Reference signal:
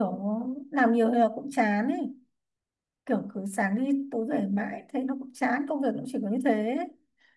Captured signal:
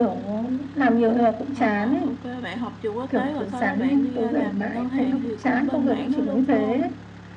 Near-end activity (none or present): present